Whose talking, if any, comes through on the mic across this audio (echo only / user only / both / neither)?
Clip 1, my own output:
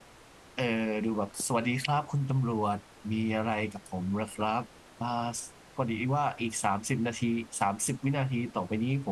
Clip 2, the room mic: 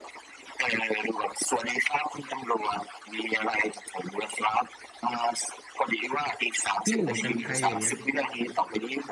both